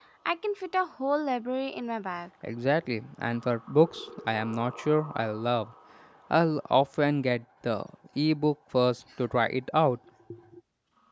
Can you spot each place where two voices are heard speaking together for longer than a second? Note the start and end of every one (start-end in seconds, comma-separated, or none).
none